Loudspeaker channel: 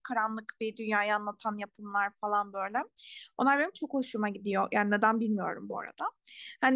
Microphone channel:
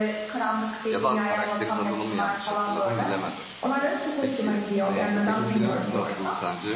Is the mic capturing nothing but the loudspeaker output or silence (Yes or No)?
No